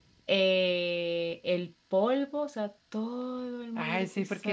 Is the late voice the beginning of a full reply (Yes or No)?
Yes